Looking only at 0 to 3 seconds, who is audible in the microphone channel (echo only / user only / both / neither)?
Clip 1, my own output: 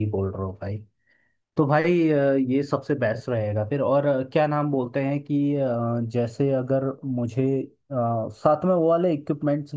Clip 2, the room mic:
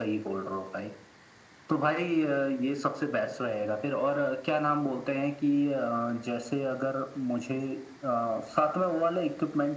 echo only